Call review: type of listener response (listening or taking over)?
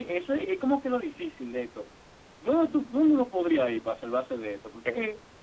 taking over